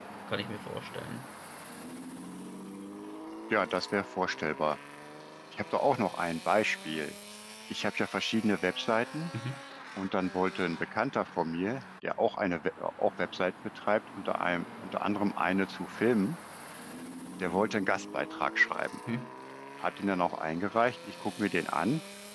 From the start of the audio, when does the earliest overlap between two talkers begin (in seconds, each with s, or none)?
none